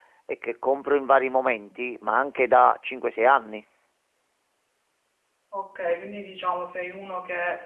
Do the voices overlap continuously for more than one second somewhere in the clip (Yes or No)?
No